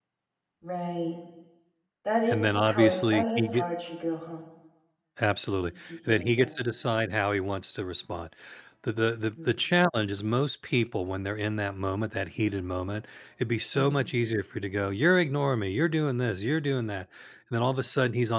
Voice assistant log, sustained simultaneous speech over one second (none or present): present